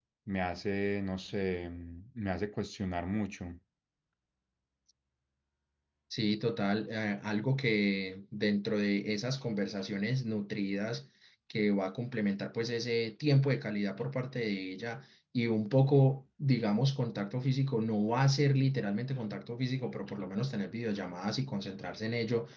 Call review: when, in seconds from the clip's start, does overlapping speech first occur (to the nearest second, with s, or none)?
none